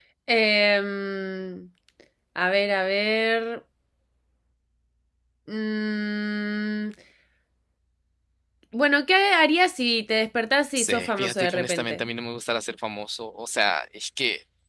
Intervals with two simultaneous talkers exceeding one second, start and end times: 10.8-12.0

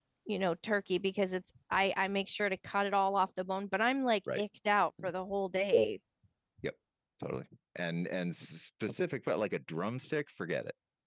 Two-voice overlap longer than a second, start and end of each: none

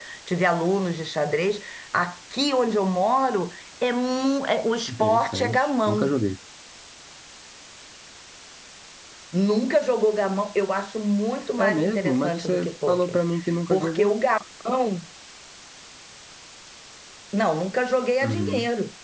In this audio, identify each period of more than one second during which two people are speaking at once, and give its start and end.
4.9-6.1, 11.6-13.2

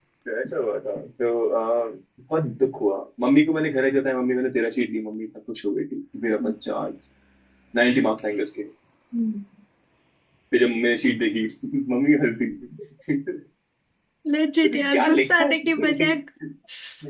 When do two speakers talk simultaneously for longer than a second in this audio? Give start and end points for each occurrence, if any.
14.7-15.9

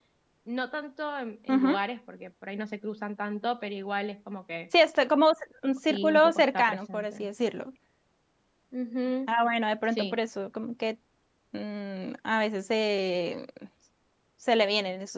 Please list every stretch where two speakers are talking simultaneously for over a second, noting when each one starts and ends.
5.9-7.3

